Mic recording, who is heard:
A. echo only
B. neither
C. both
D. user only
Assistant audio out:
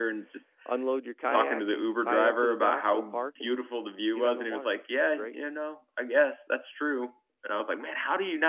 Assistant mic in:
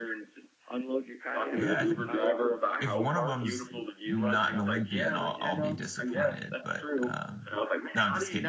C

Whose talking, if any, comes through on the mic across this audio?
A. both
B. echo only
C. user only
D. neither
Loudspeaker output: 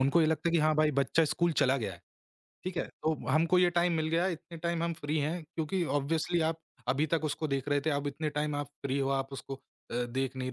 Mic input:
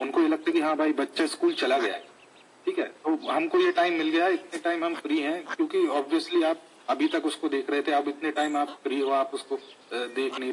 B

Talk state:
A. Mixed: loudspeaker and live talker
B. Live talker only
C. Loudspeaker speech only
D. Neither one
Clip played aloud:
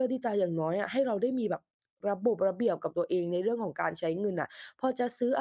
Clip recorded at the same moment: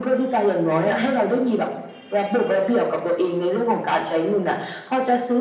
A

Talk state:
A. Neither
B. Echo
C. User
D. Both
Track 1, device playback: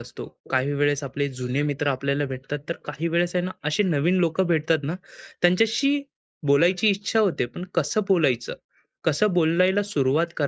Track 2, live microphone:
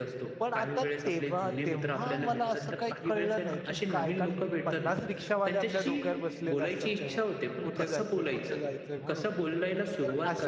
D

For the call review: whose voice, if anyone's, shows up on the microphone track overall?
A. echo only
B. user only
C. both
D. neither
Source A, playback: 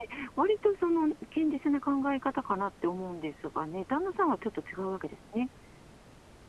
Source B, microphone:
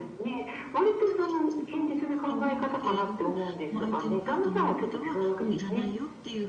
C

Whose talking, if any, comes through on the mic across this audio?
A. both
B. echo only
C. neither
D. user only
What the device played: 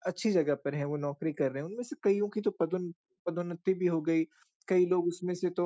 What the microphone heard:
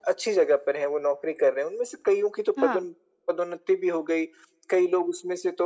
A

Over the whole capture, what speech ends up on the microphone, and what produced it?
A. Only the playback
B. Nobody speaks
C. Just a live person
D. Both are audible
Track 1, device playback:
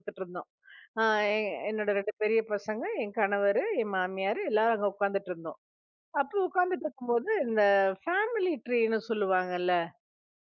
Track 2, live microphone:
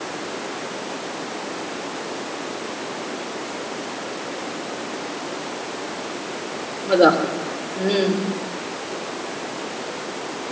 C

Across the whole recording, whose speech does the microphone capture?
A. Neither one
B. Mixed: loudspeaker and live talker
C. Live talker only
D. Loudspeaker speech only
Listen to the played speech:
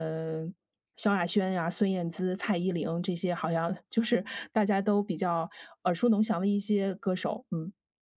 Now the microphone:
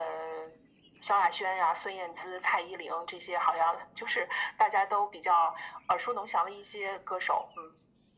D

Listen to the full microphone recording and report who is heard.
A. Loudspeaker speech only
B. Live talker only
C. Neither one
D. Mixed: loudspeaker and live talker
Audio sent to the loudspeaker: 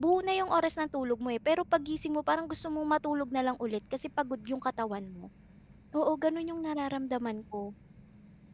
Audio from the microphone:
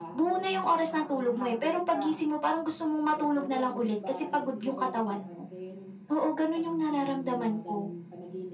D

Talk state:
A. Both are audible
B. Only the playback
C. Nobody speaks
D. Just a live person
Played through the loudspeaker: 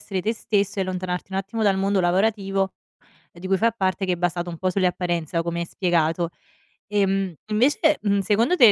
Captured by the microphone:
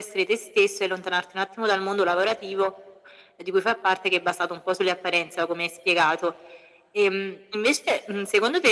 B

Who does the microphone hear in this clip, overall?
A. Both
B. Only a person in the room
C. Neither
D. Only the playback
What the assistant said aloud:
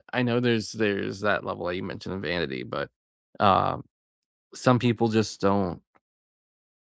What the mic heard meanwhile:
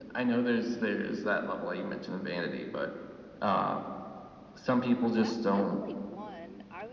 A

